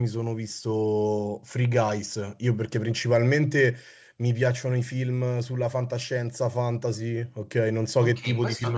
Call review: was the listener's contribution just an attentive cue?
No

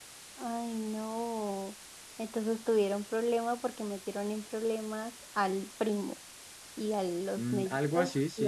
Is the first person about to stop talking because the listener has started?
Yes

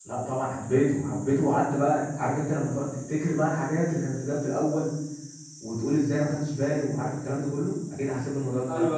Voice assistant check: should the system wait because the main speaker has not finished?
No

